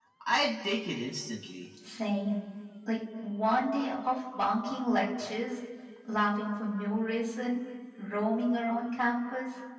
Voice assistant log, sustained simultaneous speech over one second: none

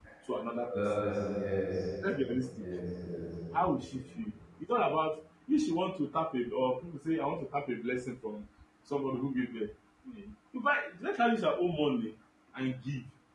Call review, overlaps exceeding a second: none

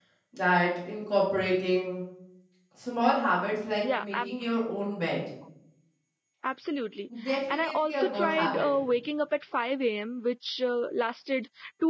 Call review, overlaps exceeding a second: present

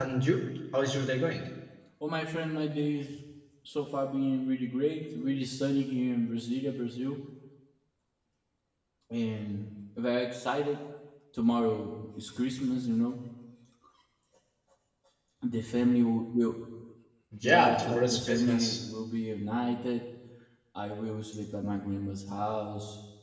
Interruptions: present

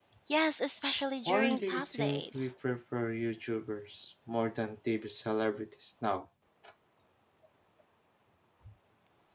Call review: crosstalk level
present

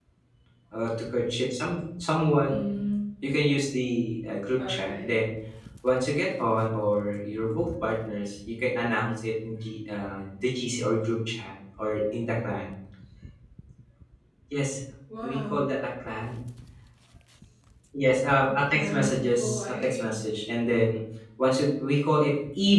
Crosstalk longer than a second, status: present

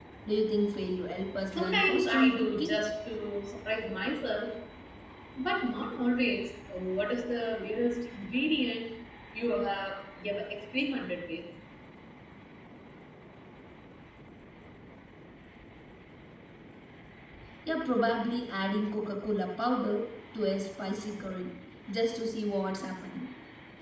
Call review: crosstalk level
present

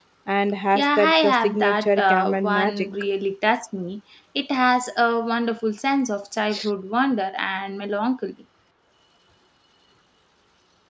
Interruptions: present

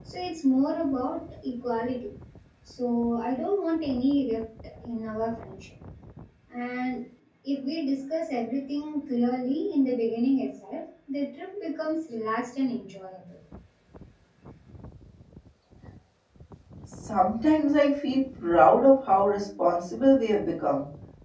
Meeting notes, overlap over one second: none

